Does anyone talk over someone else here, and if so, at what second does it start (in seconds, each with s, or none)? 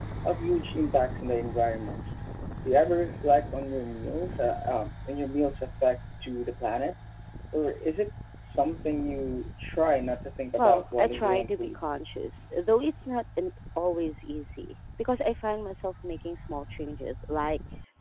10.6 s